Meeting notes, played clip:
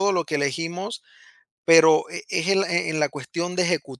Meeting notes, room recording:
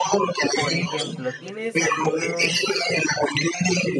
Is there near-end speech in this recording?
Yes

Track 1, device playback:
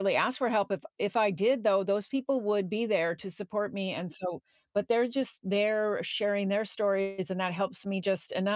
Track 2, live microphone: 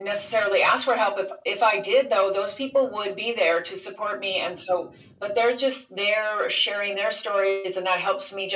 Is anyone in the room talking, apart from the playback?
No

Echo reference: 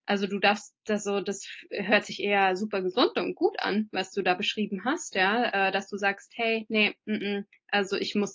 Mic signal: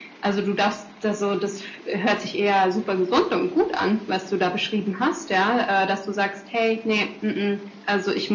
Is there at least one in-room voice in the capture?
No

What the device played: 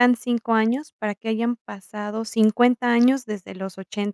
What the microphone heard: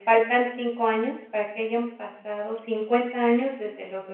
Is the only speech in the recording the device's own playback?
Yes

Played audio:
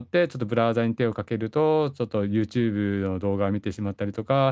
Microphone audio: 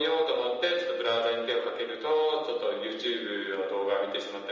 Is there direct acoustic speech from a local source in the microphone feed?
No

